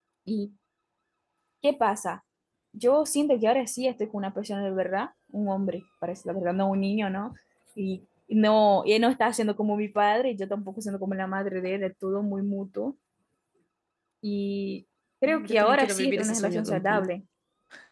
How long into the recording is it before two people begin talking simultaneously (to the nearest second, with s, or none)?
15 s